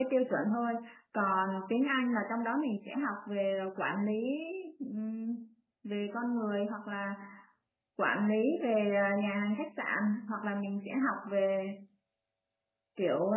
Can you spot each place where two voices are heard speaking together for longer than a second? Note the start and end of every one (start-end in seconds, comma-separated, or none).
none